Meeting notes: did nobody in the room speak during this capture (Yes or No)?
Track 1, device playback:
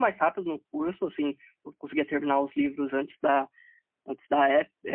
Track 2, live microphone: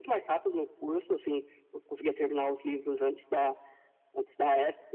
Yes